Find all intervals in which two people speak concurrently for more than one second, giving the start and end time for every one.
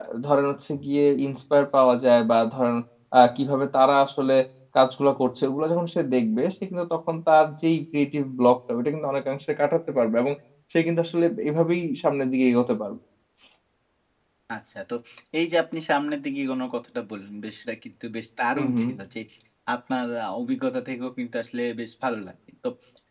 none

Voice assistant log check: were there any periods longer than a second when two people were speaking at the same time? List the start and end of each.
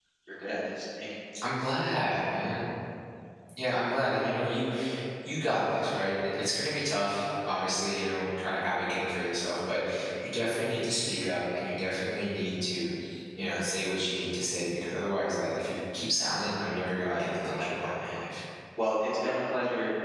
16.6-18.2

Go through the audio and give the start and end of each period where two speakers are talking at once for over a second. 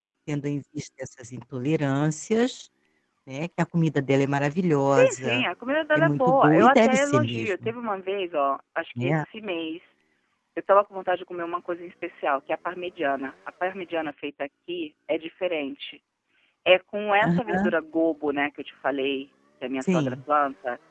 6.0-7.7

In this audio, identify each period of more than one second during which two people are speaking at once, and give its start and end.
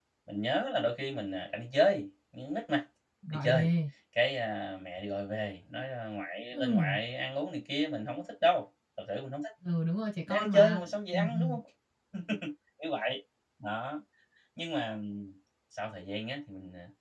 10.2-11.6

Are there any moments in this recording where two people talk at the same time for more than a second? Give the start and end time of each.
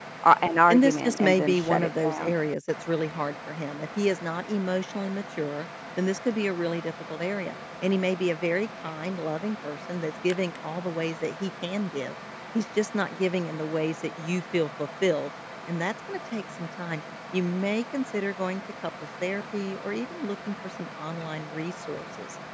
0.7-2.3

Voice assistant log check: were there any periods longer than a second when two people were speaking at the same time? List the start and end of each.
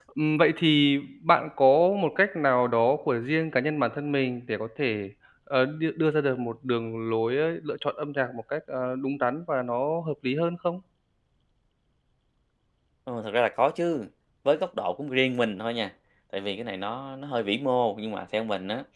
none

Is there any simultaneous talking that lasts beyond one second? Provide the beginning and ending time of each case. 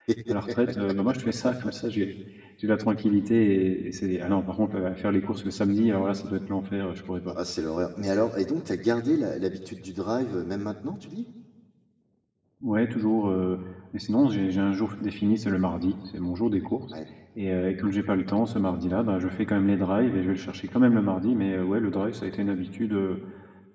none

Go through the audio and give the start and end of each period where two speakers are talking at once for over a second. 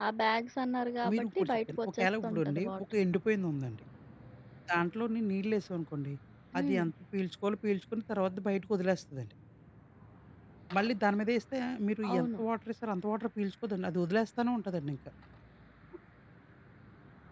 1.1-3.0

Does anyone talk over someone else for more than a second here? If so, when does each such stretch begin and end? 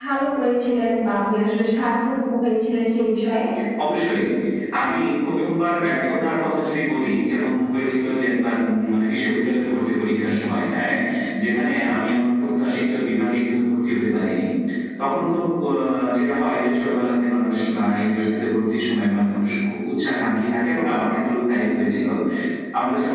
none

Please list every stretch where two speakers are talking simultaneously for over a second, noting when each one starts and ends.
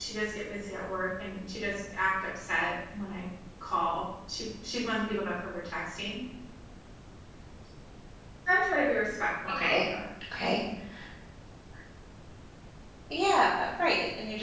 none

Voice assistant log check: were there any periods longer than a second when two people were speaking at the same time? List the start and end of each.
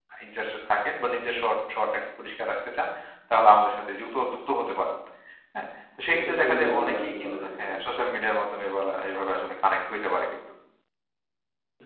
6.2-7.7

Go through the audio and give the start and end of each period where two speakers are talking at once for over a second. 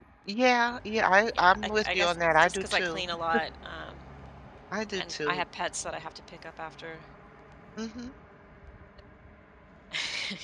1.4-3.0

